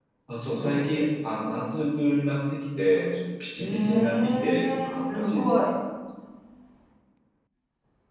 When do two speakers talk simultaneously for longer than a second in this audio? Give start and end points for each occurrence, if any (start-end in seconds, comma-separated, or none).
3.6-5.5